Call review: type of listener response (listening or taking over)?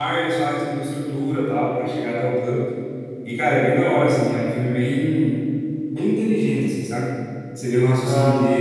listening